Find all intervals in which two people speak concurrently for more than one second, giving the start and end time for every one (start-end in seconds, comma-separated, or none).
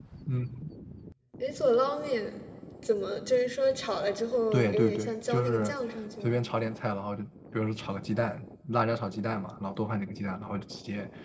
4.5-5.8